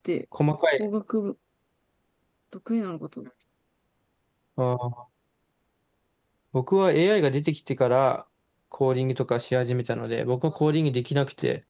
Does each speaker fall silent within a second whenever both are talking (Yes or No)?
Yes